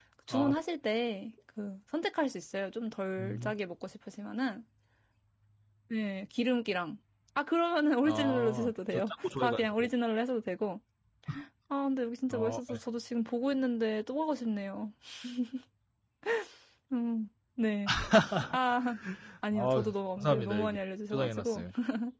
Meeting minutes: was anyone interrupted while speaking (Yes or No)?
Yes